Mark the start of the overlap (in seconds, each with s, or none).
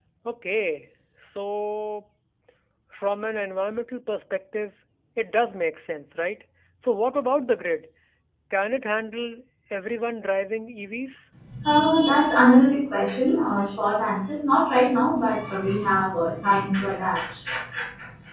none